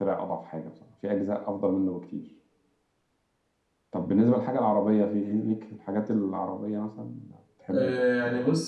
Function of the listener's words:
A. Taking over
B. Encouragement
A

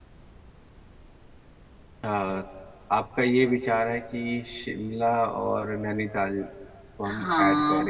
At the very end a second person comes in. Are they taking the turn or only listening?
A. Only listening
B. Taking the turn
B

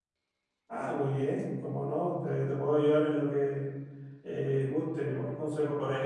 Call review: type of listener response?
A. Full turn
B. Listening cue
B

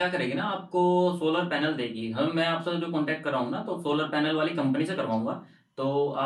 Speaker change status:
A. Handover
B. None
B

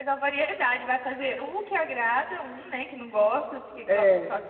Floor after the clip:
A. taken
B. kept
B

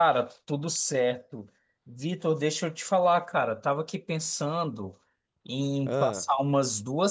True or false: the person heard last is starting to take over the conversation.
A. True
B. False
B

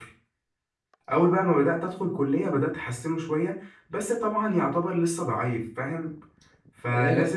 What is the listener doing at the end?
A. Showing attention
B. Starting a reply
A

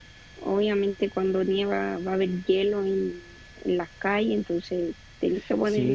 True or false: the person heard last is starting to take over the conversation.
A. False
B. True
B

